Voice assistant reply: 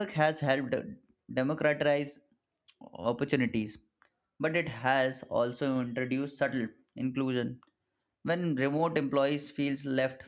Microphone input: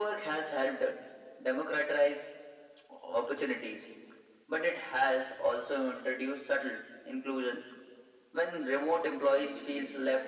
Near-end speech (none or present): present